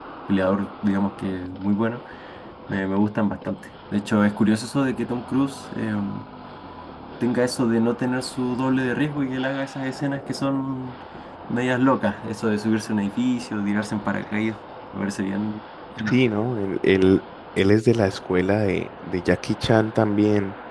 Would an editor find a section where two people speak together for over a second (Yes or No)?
No